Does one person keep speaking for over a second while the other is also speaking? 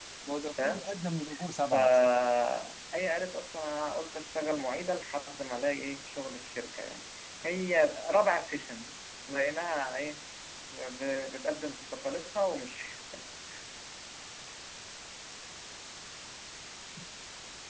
No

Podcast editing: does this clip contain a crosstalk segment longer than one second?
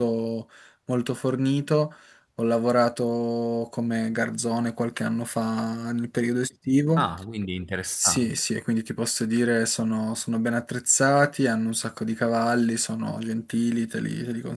No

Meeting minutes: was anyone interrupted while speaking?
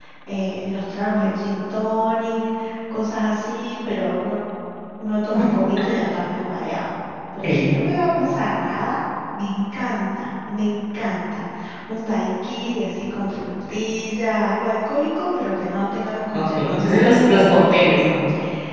Yes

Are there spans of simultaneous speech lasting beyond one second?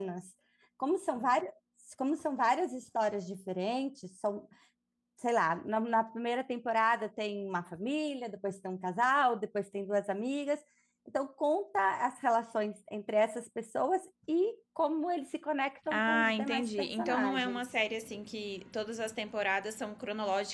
Yes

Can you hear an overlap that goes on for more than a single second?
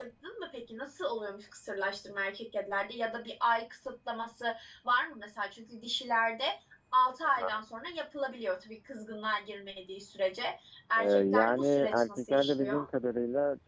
Yes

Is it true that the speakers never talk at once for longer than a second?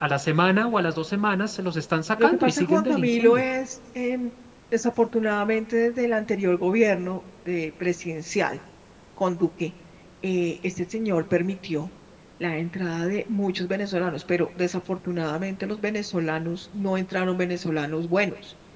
No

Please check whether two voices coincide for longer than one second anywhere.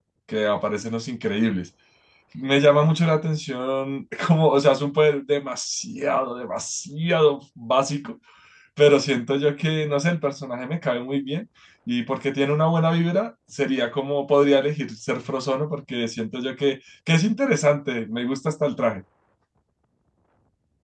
No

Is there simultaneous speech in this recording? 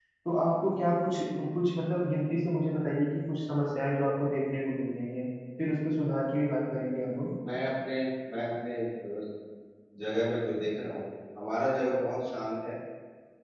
No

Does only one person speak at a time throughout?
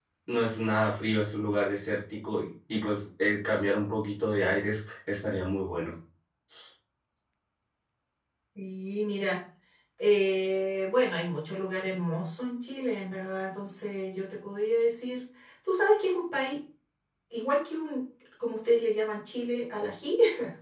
Yes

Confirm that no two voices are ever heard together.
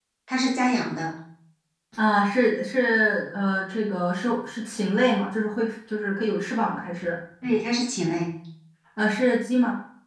Yes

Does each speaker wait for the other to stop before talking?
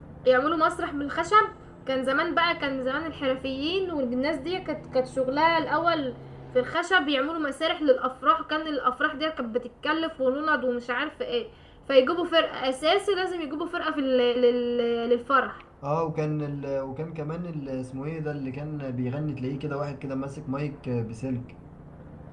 Yes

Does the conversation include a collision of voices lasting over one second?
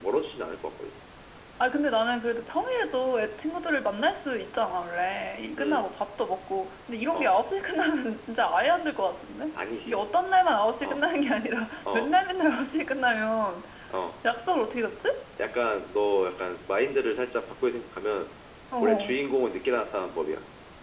No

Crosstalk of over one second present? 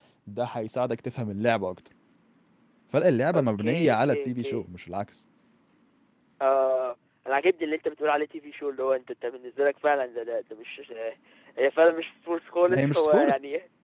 Yes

